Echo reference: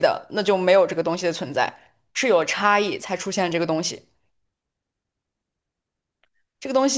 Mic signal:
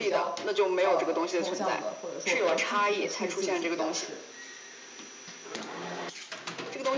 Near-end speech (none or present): present